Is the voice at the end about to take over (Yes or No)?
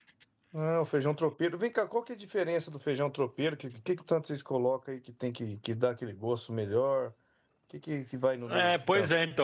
Yes